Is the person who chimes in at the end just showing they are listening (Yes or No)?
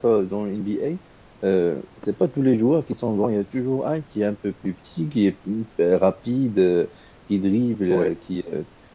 Yes